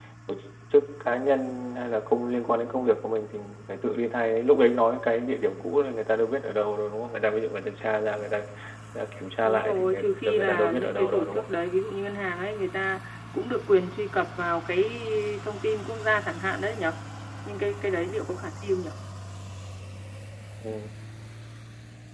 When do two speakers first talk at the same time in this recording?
9.4 s

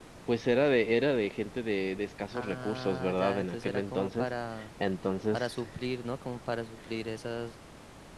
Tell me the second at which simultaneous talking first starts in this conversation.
2.4 s

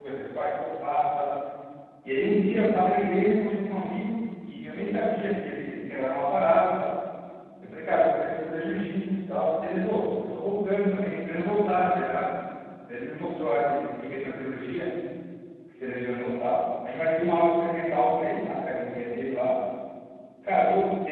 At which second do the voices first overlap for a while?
none

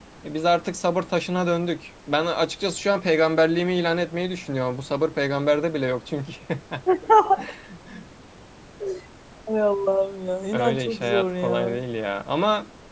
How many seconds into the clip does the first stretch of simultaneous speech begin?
10.5 s

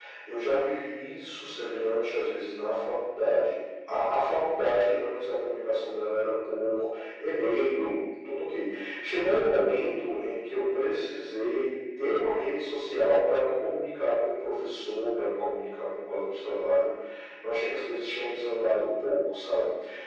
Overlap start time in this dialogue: none

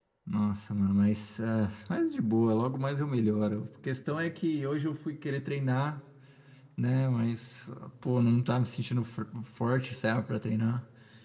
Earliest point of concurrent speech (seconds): none

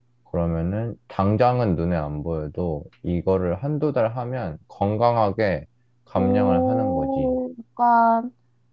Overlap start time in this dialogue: 6.2 s

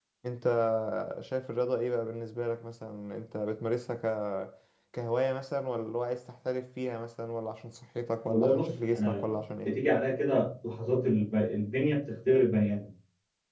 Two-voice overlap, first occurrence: 8.3 s

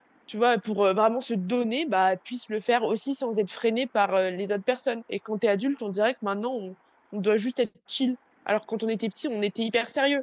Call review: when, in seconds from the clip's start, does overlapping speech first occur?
none

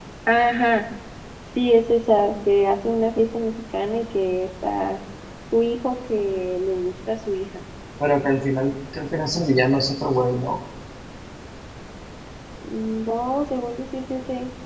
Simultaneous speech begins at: none

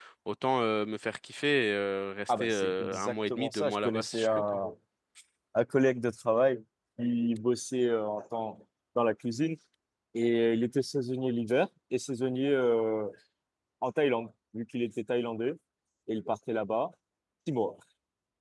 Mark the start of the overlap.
2.3 s

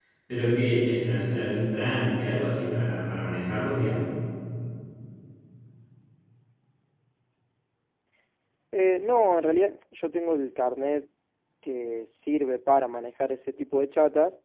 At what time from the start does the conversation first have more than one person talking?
none

